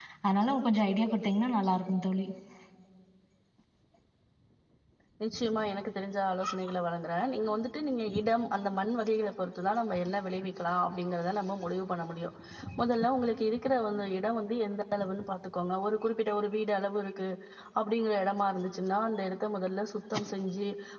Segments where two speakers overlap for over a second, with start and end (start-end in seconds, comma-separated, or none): none